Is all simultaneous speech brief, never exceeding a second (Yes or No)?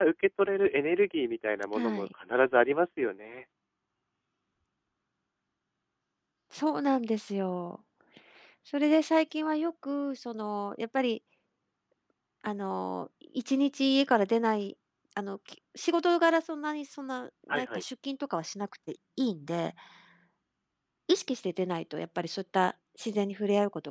Yes